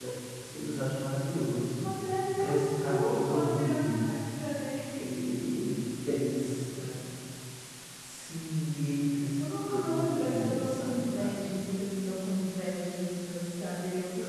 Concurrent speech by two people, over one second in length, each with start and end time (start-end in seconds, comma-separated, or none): 2.4-4.1, 9.4-11.8